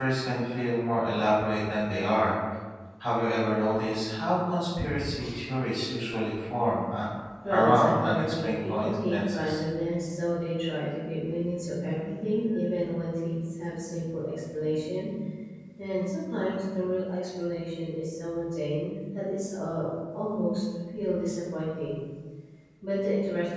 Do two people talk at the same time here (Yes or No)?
Yes